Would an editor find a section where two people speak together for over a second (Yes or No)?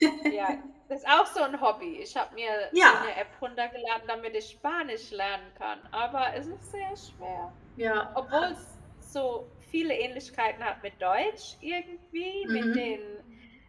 No